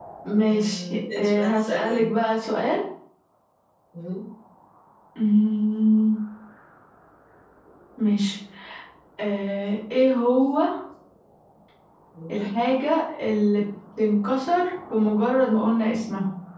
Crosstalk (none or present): present